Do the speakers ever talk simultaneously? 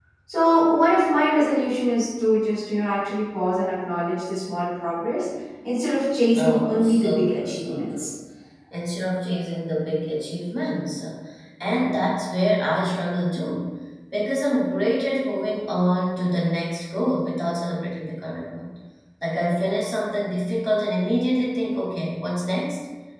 Yes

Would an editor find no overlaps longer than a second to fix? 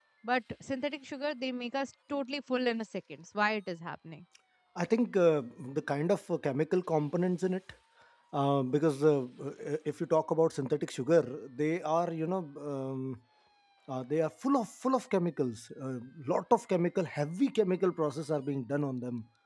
Yes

